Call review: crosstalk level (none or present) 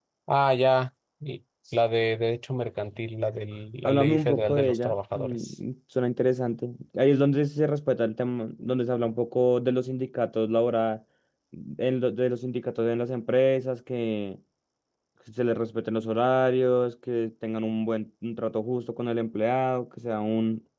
present